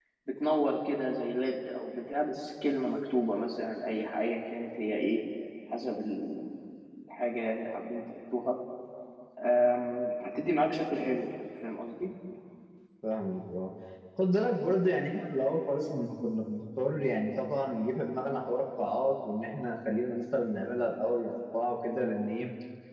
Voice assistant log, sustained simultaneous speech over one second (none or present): none